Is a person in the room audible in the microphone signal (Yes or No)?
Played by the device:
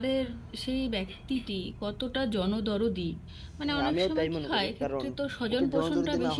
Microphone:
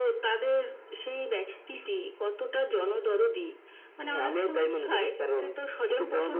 No